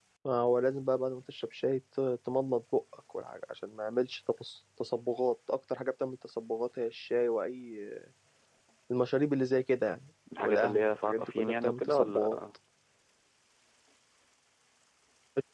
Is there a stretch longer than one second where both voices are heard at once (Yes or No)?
Yes